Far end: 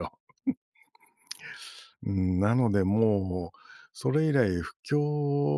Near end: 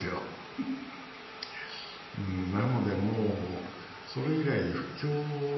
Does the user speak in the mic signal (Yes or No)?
No